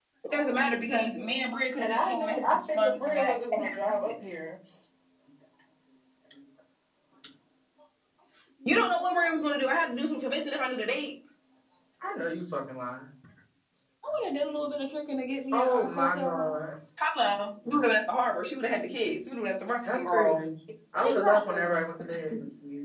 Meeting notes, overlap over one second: present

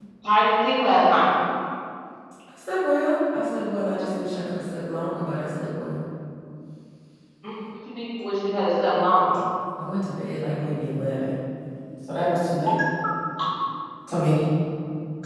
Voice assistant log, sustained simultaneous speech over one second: none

